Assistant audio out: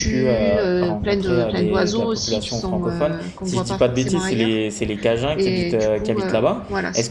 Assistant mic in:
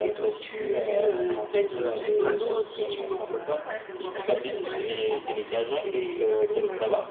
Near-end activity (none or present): present